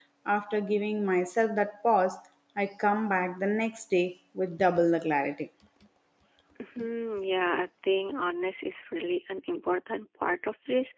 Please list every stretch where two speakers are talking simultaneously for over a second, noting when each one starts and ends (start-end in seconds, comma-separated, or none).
none